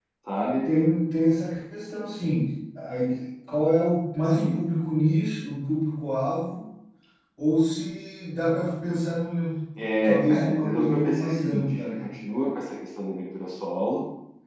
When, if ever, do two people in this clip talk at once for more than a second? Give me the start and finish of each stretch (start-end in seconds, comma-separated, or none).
10.0-12.1